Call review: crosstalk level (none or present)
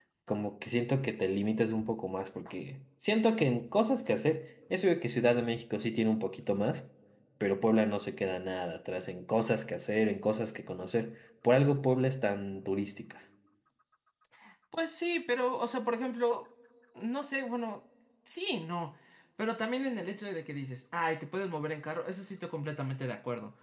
none